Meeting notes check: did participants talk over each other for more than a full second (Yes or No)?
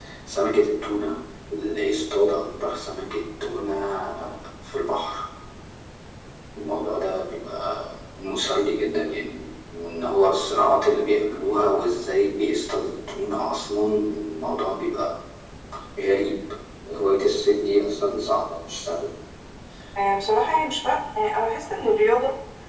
No